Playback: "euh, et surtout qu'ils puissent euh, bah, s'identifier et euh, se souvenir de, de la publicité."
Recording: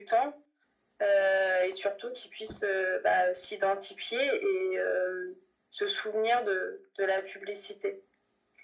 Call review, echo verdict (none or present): present